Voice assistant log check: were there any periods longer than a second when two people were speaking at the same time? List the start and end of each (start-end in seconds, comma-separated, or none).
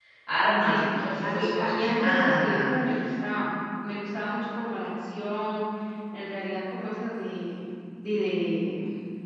0.6-2.7